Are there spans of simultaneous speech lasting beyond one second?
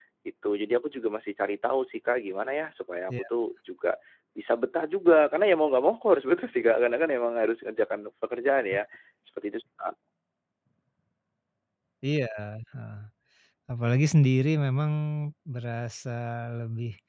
No

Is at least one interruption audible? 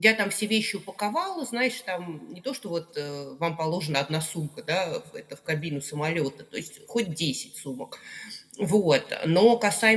No

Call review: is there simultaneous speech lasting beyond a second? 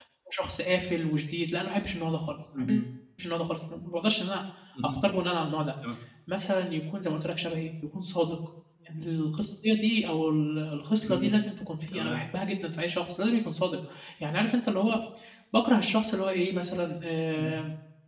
No

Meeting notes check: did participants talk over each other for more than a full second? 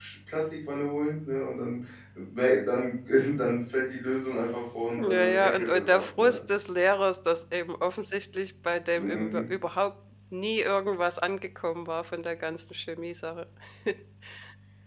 Yes, from 5.0 s

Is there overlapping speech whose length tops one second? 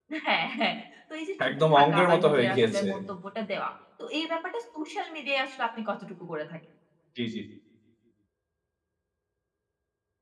Yes, from 1.4 s

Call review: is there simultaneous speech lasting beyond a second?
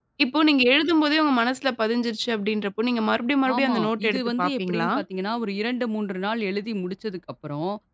Yes, from 3.4 s

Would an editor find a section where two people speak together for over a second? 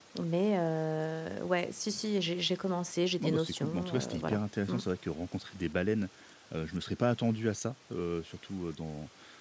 Yes, from 3.2 s

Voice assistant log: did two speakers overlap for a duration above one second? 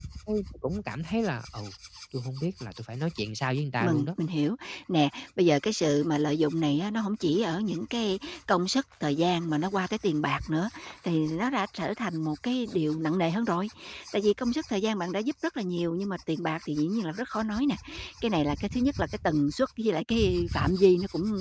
No

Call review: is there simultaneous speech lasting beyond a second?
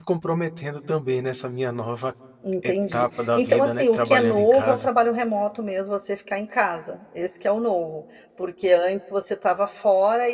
Yes, from 2.6 s

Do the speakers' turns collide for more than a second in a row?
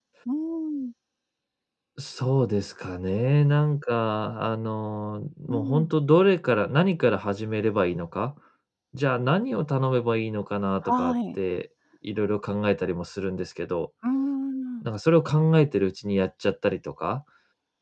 No

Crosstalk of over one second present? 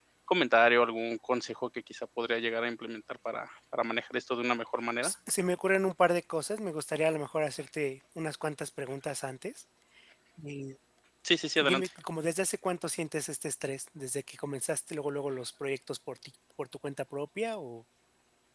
No

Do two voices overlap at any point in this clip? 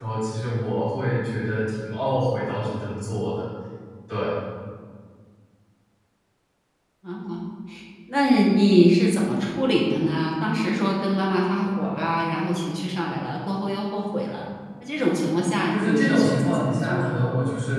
Yes, from 15.7 s

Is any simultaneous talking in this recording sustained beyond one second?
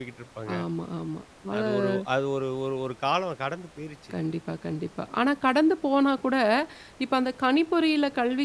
No

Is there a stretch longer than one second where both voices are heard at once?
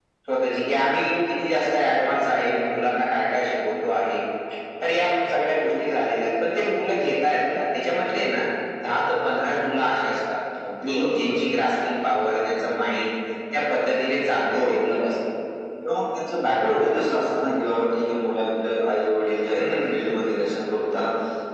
No

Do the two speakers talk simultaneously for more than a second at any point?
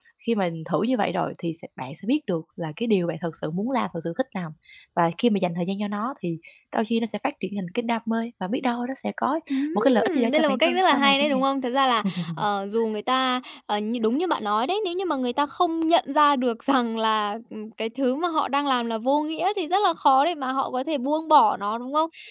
Yes, from 9.8 s

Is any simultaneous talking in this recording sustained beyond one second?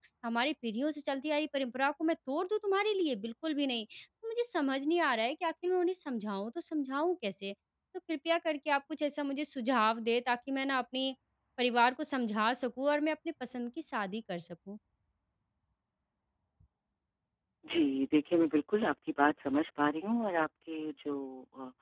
No

